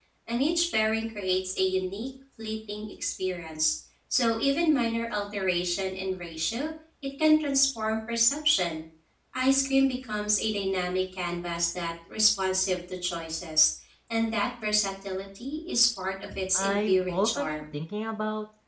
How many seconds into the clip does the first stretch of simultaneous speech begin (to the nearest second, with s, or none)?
17 s